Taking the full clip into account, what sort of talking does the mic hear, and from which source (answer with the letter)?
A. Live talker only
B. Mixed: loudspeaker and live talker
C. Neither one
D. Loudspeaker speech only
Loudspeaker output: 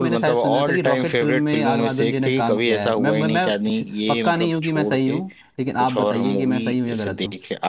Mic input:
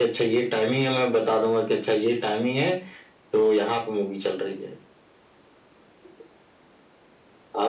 A